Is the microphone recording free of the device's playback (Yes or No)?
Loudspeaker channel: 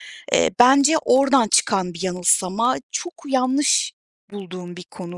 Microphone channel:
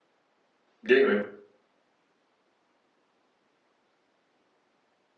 Yes